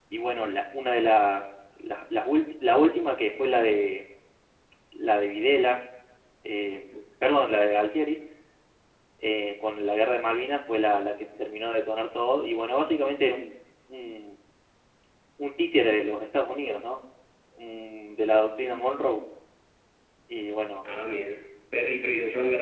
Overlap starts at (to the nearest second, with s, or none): none